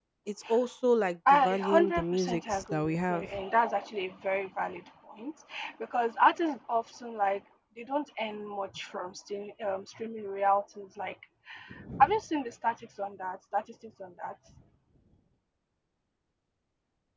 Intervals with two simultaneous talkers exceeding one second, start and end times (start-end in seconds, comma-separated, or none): 1.3-3.4